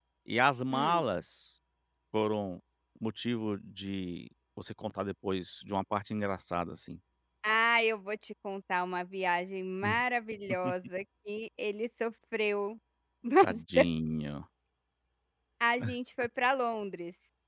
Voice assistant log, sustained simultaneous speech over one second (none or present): none